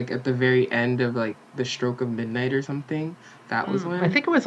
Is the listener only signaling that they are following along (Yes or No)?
No